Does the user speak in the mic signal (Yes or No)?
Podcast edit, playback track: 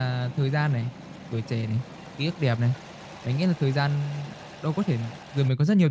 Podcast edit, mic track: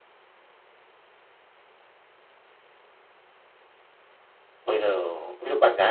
Yes